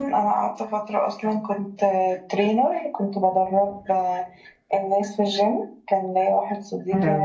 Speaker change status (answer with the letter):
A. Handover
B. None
B